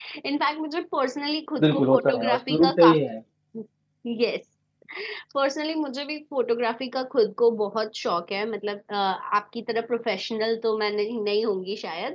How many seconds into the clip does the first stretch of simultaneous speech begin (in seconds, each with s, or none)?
1.6 s